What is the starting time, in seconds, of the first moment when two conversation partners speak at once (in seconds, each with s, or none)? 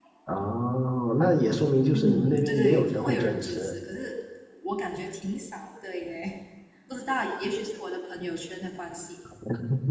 1.9 s